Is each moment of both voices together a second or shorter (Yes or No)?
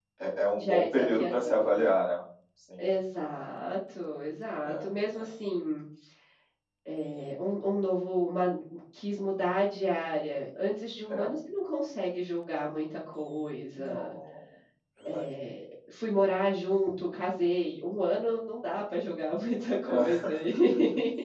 No